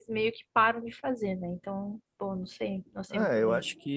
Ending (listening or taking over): taking over